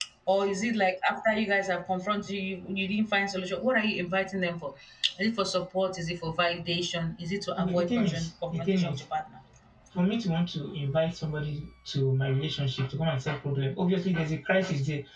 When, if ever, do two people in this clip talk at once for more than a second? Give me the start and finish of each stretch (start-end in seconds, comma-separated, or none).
7.6-9.0